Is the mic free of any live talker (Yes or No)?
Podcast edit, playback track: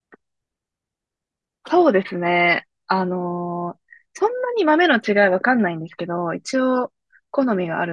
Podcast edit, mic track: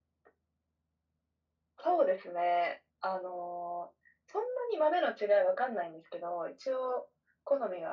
Yes